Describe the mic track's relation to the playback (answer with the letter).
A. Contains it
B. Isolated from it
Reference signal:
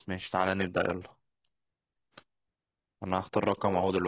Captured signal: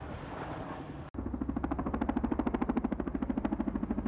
B